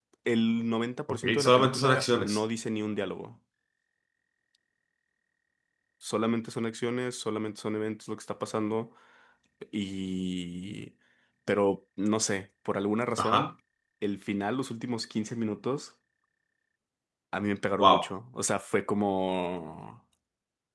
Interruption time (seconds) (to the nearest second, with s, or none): 1 s